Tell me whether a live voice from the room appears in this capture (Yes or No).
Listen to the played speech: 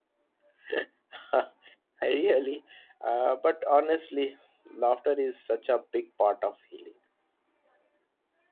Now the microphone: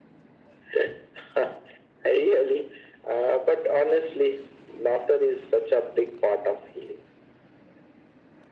No